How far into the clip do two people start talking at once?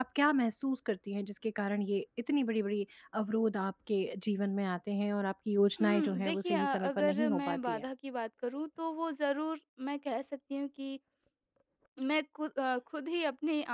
5.8 s

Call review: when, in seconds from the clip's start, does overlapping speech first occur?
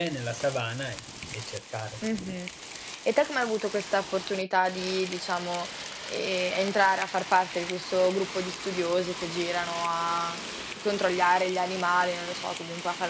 none

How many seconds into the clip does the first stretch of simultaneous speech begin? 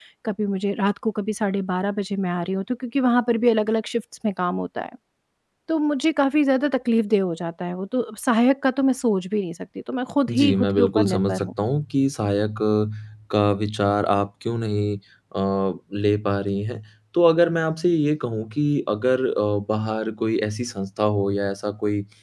10.3 s

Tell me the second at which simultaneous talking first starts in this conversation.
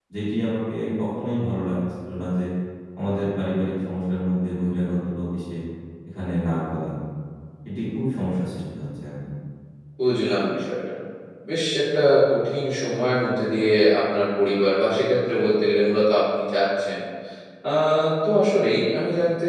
none

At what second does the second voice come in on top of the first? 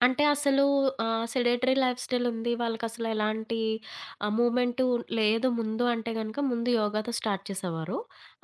none

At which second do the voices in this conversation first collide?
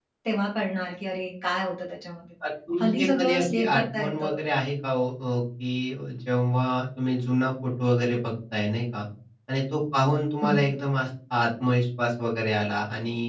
2.8 s

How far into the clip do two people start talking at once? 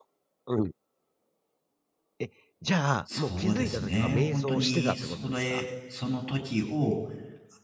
3.1 s

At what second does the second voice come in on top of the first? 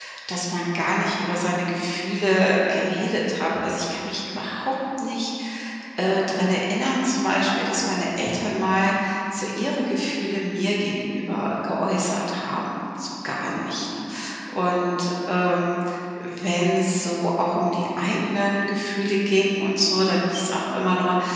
none

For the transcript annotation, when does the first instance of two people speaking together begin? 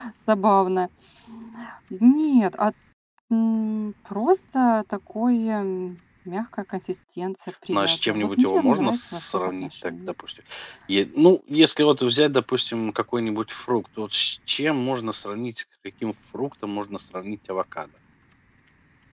7.7 s

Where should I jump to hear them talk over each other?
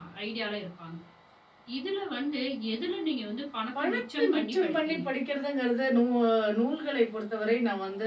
3.8 s

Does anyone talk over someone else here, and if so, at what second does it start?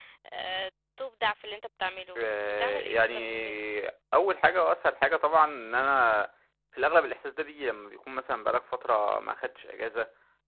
2.2 s

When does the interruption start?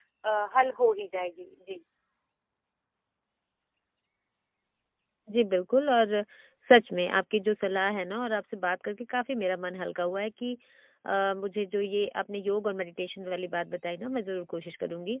none

